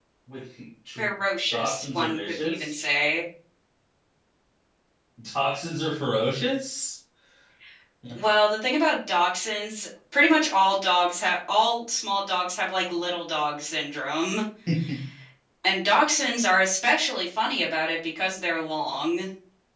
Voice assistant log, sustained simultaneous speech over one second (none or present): present